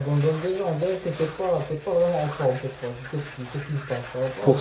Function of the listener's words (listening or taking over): taking over